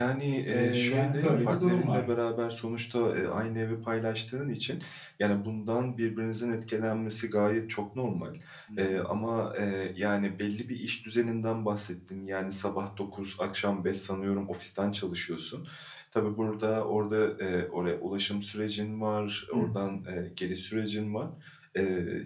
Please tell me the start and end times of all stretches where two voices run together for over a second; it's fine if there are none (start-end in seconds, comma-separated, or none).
0.5-2.0